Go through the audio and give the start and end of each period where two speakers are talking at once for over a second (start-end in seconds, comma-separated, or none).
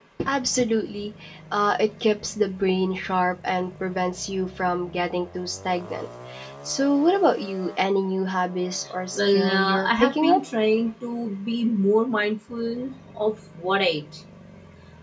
9.1-10.4